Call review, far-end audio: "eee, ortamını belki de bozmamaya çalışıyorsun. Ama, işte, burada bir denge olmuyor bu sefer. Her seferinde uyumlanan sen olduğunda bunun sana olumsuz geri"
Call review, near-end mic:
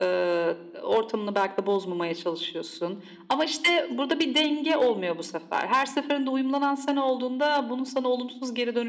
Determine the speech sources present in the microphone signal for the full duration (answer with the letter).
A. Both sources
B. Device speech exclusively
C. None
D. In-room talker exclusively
B